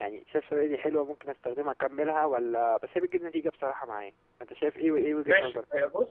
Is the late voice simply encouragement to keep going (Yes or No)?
No